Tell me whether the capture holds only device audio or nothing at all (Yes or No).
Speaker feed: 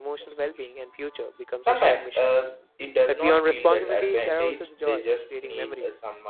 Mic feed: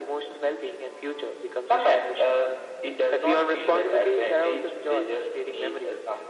Yes